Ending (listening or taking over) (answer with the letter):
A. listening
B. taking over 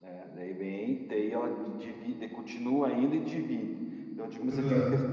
A